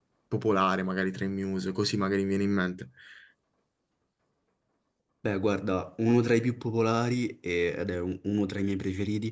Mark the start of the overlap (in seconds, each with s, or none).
none